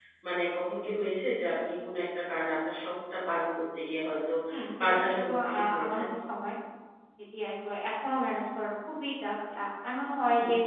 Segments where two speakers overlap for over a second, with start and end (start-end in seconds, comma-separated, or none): 4.8-6.0